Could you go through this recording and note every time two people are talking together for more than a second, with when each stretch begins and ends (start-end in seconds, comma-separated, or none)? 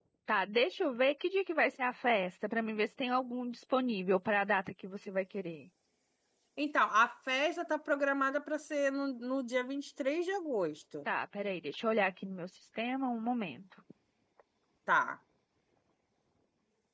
none